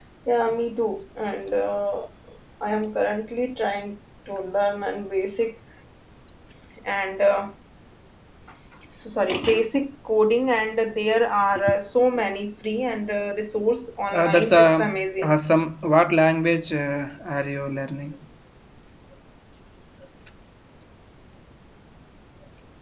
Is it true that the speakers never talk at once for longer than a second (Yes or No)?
No